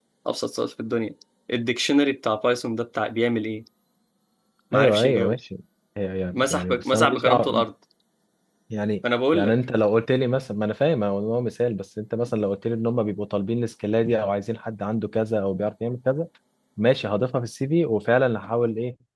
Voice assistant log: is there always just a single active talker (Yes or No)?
No